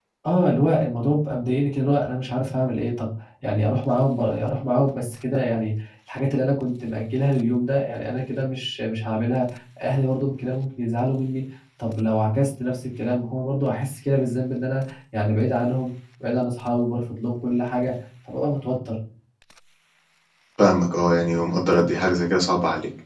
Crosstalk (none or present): none